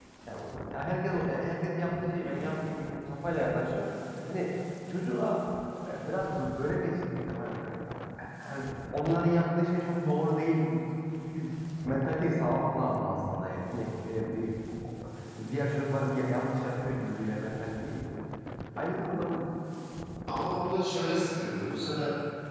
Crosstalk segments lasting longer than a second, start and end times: none

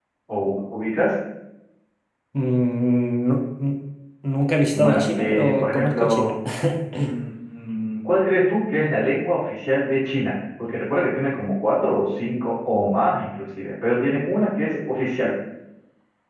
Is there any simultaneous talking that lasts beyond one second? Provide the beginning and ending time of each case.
4.7-6.3

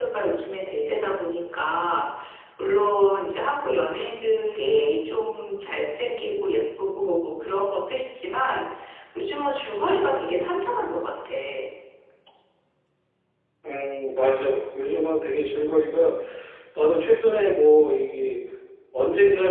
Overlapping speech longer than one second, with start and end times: none

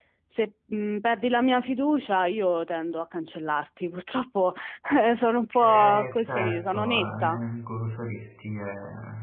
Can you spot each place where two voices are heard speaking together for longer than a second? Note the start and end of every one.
5.6-7.4

